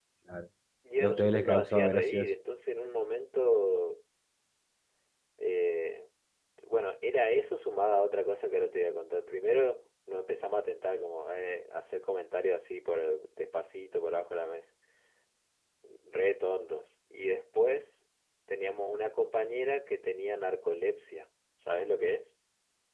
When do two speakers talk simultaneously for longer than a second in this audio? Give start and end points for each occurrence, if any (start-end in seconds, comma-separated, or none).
1.0-2.3